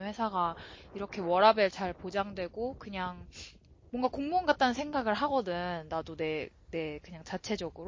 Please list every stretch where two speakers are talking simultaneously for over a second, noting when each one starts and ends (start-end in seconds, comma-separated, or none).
none